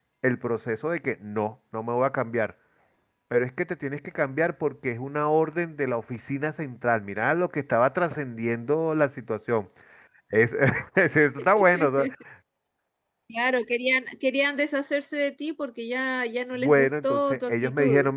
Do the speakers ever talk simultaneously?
Yes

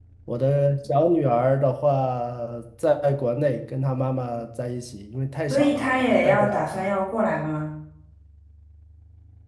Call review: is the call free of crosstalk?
No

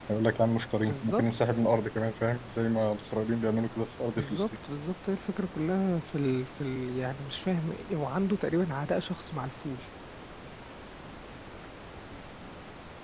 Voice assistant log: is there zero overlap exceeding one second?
Yes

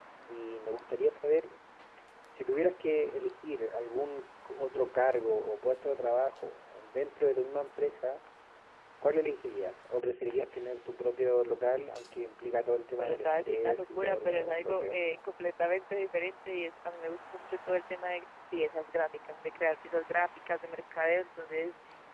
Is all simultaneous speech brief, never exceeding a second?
No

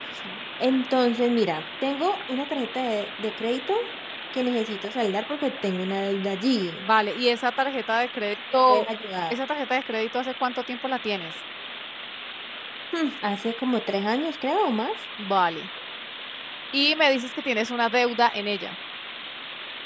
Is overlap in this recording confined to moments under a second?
Yes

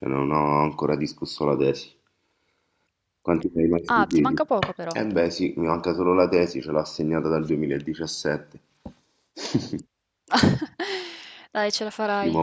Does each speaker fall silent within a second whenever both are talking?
Yes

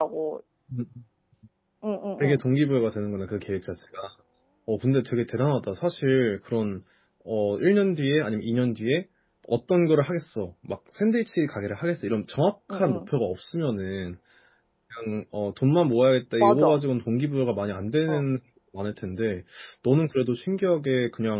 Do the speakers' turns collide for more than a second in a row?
No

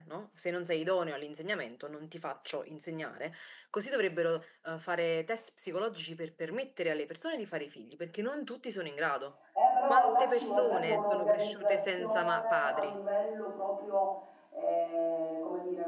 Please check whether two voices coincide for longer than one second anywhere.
Yes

